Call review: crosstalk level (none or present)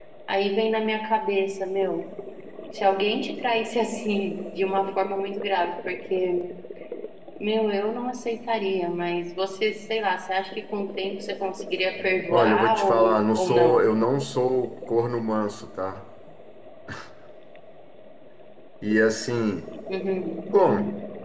present